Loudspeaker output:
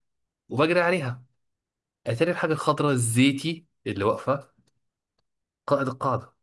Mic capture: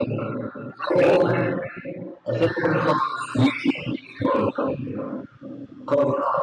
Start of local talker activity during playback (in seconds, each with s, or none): 1.0 s